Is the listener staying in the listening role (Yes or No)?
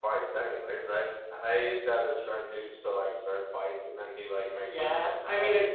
No